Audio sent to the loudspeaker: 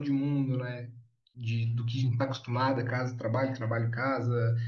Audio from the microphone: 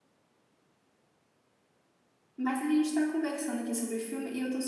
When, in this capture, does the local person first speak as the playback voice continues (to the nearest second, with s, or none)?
2 s